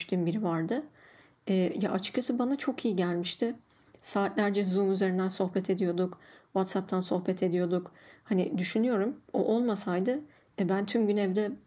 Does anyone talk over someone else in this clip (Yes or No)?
No